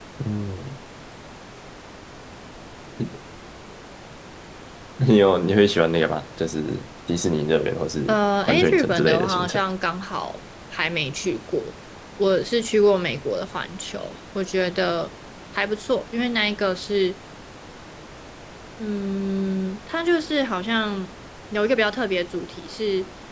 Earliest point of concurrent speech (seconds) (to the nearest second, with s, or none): 8 s